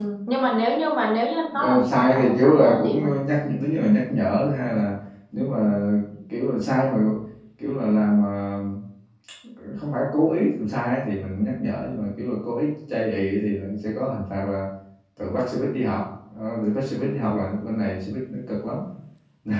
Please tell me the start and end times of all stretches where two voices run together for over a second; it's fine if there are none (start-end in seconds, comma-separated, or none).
1.6-3.2